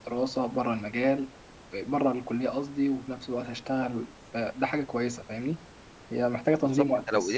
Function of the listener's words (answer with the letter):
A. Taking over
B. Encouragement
A